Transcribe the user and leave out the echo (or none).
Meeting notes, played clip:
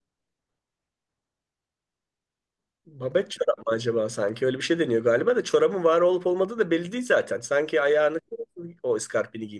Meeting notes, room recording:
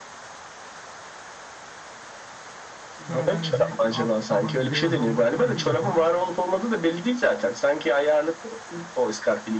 sonradan özellikle alt tabanı beyaz olmak kaydıyla falan